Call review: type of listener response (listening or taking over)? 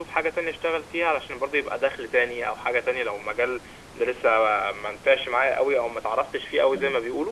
listening